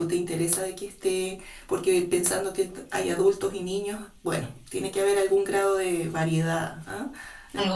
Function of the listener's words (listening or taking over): listening